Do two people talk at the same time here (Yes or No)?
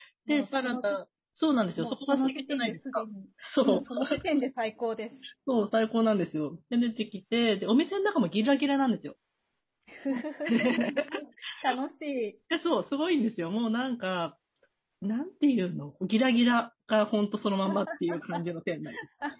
Yes